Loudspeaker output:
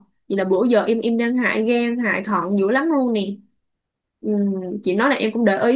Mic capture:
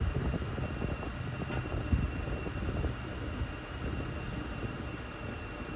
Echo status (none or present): none